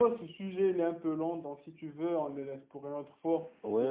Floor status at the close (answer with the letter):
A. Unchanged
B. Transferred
B